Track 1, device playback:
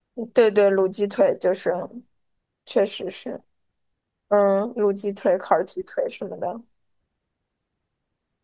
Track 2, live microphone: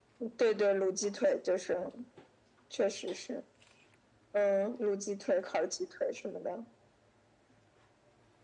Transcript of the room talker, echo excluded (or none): none